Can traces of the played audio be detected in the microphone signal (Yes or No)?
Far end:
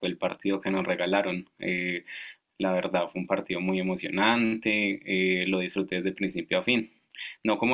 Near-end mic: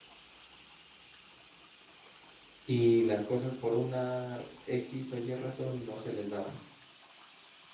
No